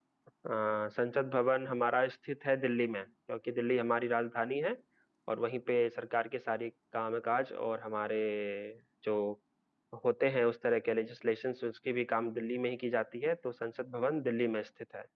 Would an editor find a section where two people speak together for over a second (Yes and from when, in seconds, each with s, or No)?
No